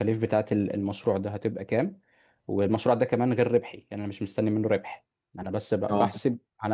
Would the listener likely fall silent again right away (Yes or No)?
Yes